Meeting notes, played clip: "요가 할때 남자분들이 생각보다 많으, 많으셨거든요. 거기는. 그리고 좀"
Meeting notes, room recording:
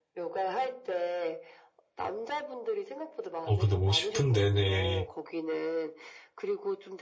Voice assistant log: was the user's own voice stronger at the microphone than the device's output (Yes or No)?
Yes